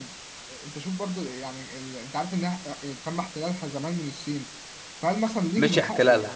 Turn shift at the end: Yes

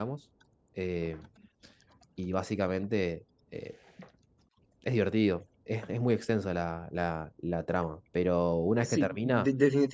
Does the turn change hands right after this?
Yes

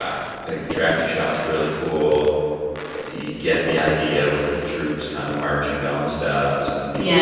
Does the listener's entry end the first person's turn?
Yes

